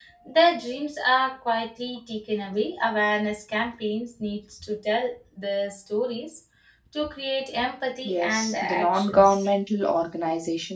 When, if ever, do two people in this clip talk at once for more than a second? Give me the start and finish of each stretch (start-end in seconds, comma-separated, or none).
8.1-9.5